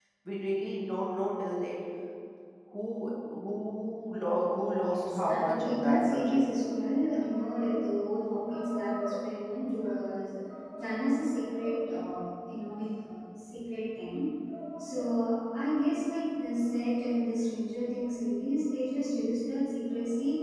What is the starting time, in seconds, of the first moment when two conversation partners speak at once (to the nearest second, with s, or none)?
5 s